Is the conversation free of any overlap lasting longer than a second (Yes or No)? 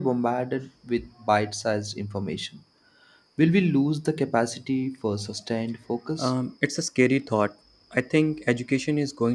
Yes